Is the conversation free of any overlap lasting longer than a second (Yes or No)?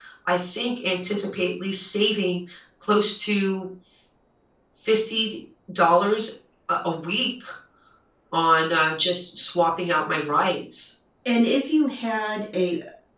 Yes